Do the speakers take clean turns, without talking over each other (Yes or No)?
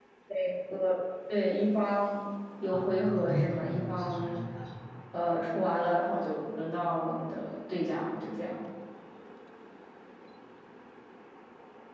No